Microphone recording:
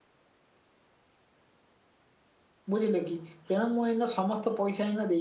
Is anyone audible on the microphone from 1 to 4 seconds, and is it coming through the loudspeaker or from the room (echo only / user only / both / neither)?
user only